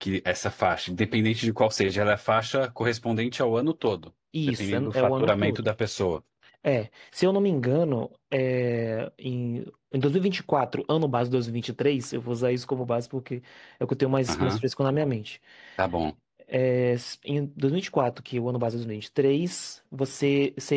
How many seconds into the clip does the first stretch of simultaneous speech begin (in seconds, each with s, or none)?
4.5 s